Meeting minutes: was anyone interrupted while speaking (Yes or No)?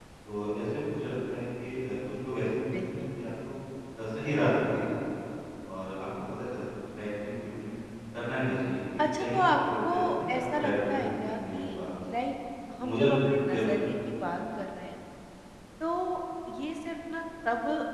Yes